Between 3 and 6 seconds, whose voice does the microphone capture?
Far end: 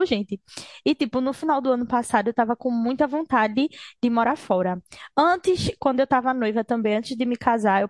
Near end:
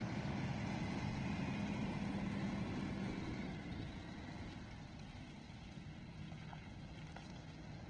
neither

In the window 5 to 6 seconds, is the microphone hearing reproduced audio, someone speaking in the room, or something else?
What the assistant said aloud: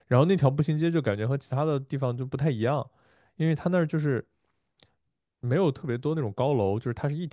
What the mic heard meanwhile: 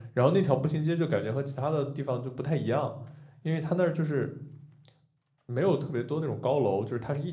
echo only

